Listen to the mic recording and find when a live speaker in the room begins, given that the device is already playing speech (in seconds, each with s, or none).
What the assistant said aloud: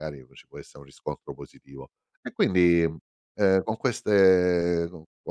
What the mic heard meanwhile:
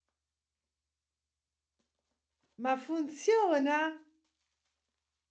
2.6 s